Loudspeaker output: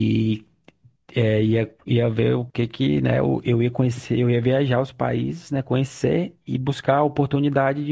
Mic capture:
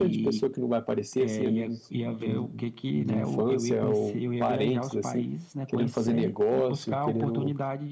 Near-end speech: present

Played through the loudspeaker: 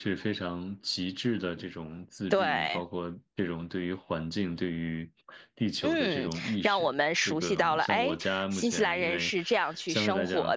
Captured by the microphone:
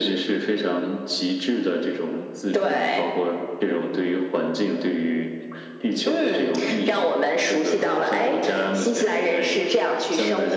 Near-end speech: none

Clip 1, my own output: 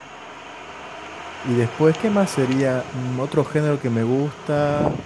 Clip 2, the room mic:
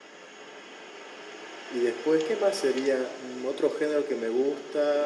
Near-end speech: none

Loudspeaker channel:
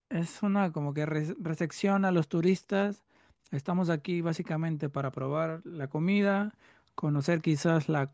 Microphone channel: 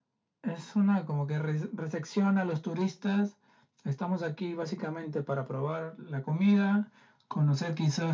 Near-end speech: none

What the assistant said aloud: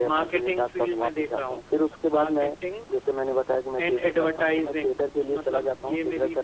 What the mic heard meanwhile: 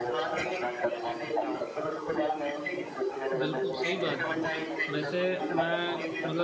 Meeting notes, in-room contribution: present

